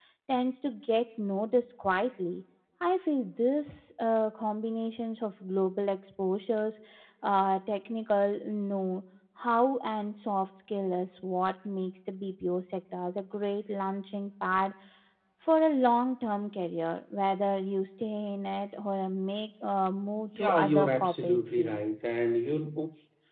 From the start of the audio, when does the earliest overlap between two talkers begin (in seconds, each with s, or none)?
20.4 s